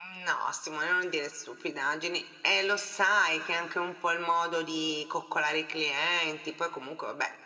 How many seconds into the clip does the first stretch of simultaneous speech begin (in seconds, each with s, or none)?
none